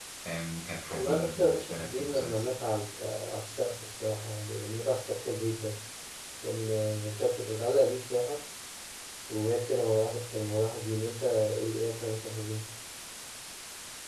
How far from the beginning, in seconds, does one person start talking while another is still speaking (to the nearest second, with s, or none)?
1 s